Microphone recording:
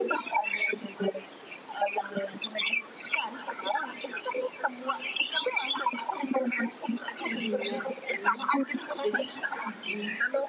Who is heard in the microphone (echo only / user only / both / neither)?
both